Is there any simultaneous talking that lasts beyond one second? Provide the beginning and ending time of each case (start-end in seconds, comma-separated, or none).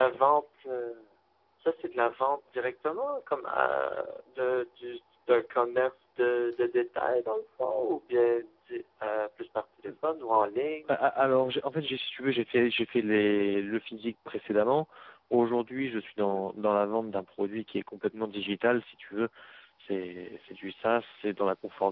none